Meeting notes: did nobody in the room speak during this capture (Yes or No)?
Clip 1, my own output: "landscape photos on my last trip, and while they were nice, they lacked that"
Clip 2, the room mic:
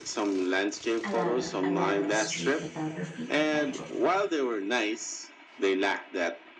No